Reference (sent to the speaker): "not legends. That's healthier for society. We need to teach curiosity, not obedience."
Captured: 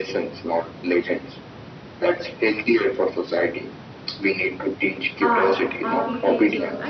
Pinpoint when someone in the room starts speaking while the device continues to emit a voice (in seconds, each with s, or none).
5.2 s